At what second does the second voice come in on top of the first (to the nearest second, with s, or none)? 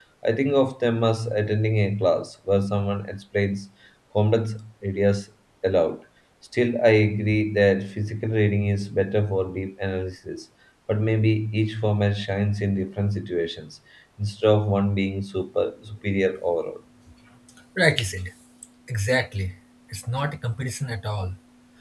none